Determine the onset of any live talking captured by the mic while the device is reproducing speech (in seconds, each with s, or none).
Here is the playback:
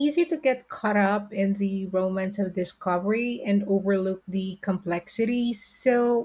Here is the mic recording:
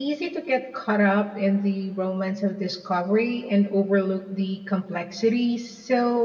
none